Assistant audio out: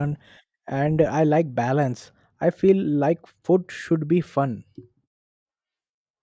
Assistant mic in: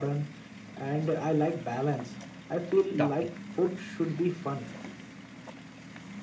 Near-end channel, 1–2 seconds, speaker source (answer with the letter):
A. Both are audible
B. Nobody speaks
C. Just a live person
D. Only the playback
D